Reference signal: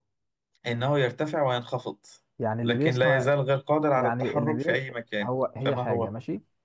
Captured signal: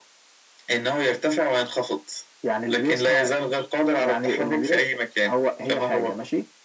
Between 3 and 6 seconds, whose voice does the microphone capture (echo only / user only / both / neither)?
echo only